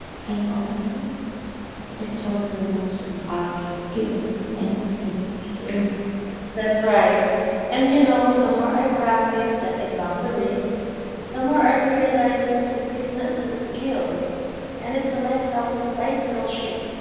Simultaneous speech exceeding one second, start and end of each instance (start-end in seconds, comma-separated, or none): none